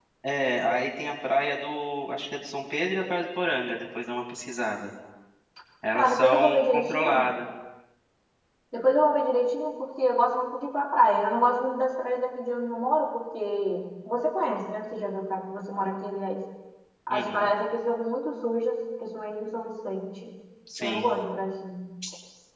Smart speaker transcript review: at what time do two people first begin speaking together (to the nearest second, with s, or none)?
6 s